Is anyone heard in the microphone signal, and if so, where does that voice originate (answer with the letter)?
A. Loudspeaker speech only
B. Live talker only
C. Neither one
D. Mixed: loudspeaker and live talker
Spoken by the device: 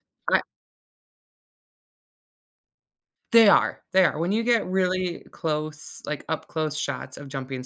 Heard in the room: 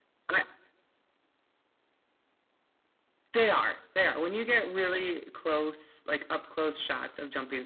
A